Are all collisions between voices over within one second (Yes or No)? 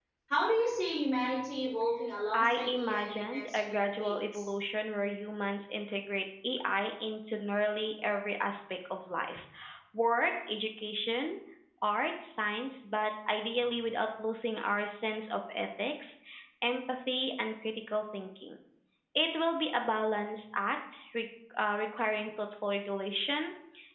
No